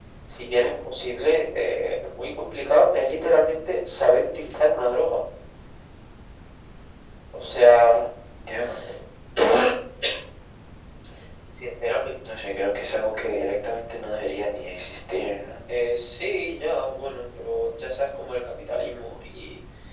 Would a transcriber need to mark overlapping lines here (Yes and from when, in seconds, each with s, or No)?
No